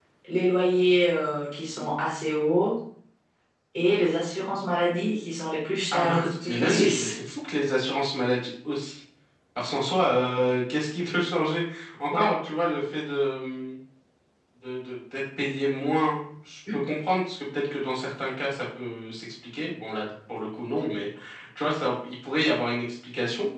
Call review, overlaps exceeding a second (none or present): present